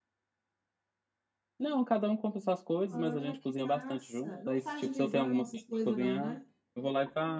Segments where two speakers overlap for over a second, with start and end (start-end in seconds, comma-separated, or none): 2.9-6.4